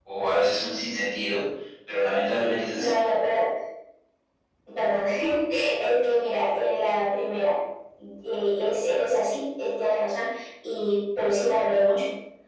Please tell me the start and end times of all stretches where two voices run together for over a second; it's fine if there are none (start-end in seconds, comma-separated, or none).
none